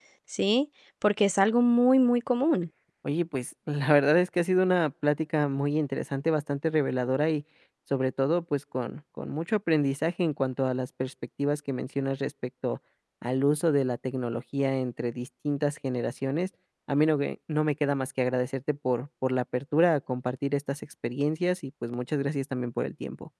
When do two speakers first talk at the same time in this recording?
none

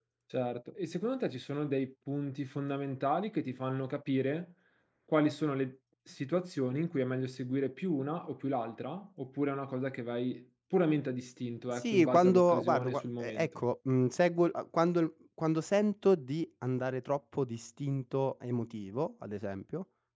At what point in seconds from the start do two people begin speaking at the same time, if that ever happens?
12 s

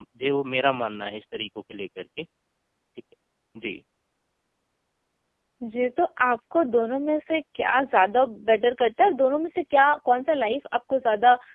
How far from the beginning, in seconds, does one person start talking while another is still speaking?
none

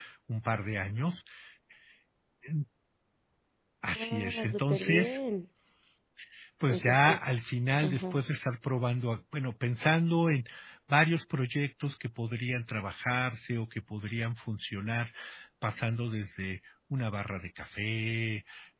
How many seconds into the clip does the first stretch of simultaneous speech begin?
4 s

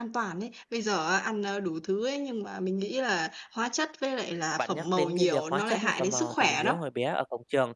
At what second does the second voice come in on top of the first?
5 s

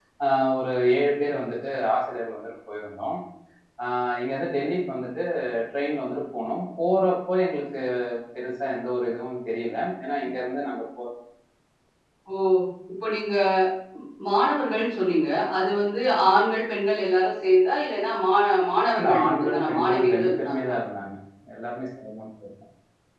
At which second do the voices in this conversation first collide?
19 s

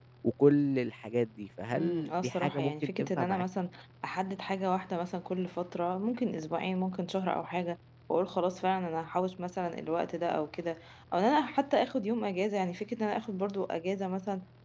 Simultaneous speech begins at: 2 s

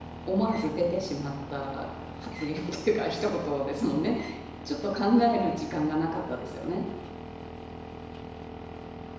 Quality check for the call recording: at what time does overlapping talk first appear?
none

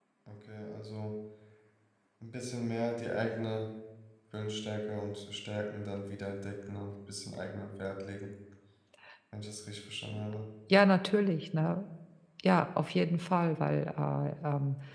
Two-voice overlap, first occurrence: none

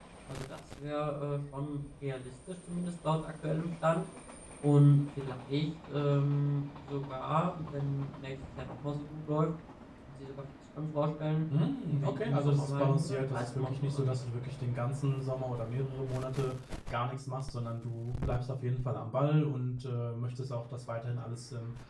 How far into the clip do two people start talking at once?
12 s

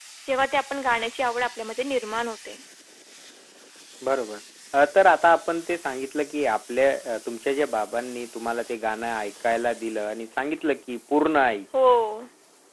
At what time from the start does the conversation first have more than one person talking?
none

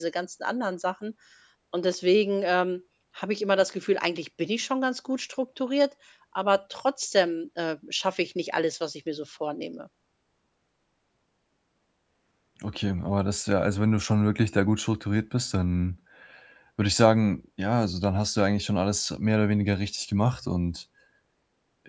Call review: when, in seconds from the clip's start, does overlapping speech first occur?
none

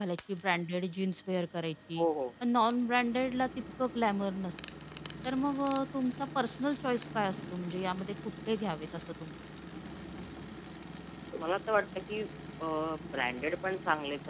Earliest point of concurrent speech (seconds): none

